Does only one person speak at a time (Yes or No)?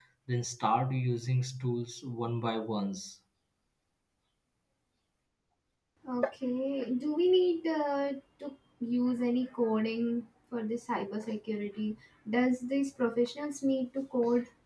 Yes